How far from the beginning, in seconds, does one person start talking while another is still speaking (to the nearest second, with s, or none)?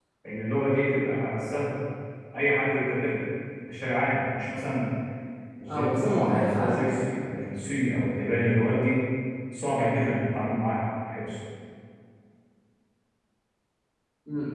6 s